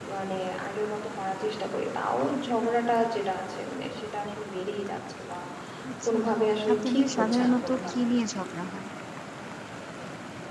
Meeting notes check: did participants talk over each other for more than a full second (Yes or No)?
Yes